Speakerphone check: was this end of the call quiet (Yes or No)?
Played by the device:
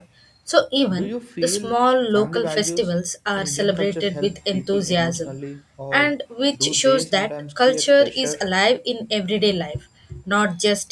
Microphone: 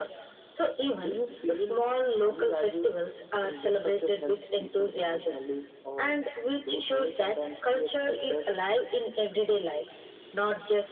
Yes